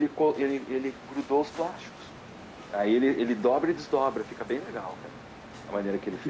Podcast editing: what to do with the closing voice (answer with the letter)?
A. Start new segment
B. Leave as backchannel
A